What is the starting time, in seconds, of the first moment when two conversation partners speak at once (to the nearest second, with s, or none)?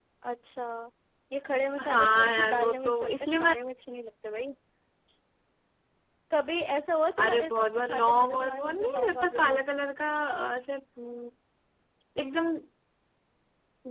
2 s